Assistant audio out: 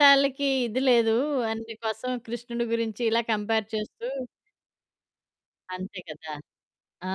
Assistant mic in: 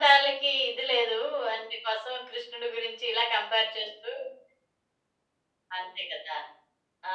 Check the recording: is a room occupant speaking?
No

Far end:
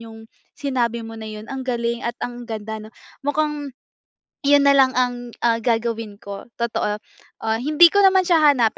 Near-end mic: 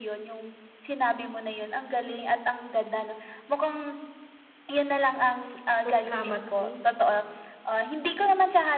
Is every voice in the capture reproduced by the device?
No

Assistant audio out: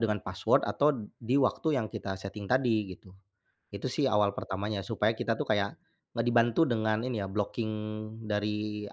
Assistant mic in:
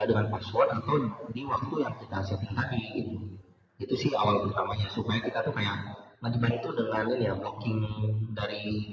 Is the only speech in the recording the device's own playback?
Yes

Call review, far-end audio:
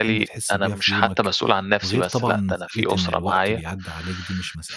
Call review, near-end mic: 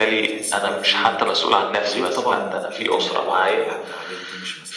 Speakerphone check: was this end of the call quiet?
Yes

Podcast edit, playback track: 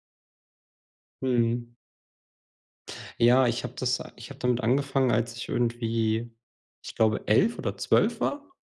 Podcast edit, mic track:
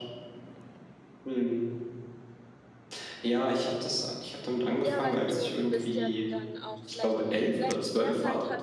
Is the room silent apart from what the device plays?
No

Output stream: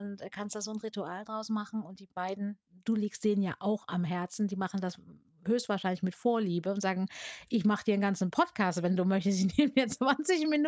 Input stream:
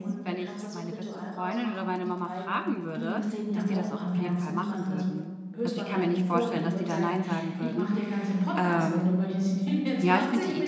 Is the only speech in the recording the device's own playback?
No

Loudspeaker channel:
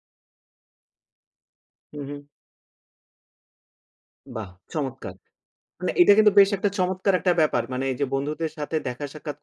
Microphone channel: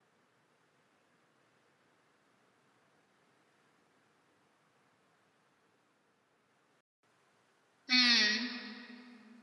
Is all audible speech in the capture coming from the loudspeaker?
No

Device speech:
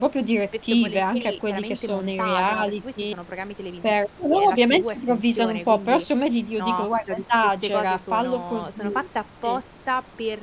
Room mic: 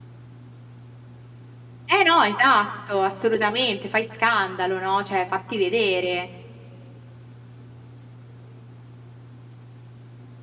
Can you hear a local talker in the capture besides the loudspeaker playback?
Yes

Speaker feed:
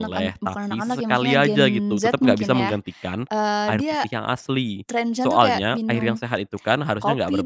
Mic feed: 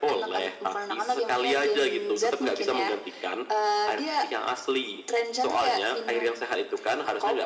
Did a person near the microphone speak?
No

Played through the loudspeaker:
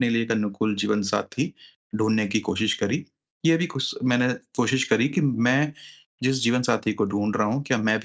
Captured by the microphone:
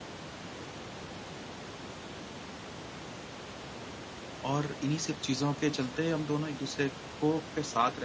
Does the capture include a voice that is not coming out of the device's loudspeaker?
Yes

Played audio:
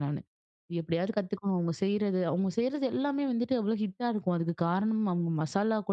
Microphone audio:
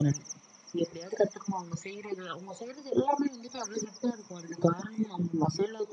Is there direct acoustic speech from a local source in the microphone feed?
No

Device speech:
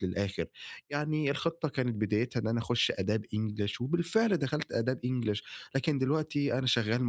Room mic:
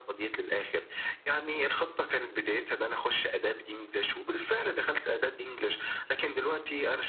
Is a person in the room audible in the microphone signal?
No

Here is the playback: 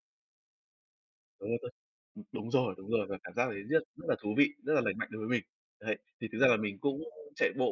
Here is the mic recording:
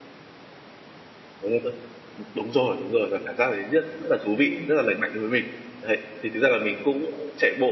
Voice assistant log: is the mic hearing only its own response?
No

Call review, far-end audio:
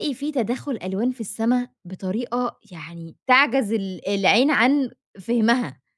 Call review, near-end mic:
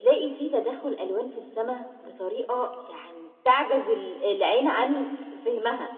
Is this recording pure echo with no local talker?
Yes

